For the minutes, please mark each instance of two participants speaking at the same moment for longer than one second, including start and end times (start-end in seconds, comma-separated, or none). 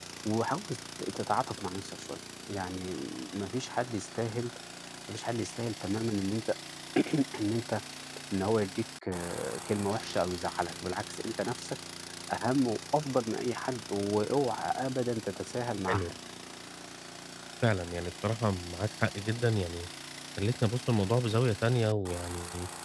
none